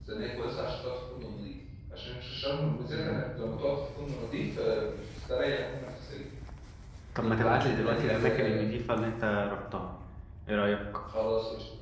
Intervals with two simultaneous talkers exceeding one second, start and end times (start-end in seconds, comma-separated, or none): 7.2-8.6